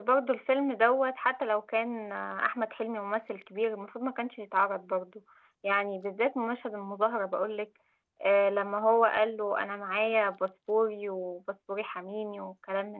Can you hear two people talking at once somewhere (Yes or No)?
No